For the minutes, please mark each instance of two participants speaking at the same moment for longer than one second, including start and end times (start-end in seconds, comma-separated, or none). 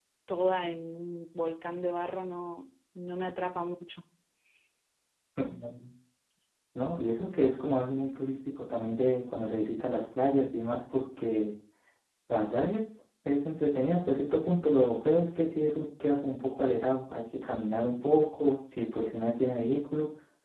none